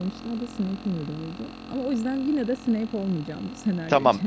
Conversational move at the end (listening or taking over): taking over